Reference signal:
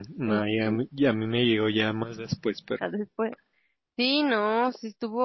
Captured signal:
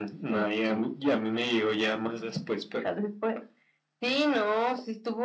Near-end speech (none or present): none